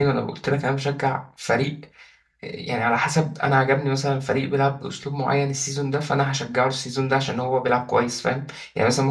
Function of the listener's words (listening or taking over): listening